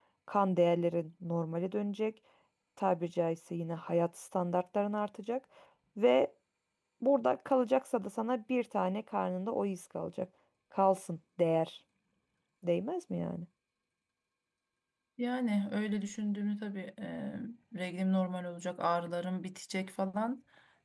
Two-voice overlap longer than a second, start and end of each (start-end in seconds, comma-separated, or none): none